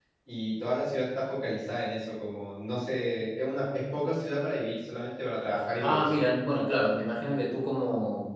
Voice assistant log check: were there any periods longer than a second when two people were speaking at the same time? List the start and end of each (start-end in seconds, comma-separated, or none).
none